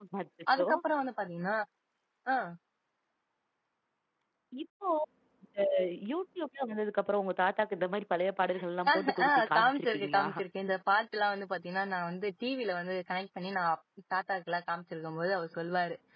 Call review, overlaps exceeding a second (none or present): present